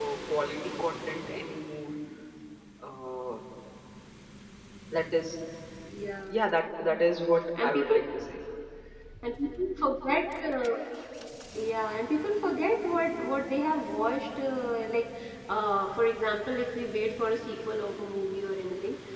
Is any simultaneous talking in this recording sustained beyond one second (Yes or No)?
No